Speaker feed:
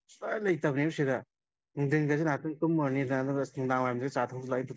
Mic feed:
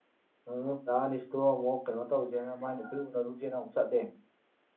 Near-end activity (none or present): present